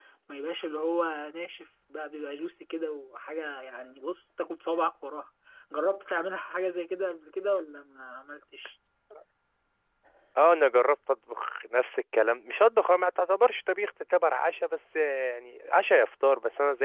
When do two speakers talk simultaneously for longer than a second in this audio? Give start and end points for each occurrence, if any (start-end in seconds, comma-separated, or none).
none